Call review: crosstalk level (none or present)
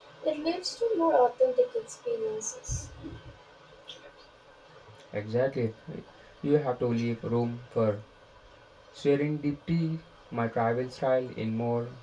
none